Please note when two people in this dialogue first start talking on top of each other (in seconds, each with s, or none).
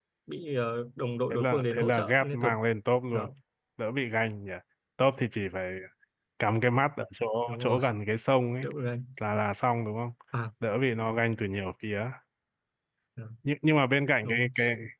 1.3 s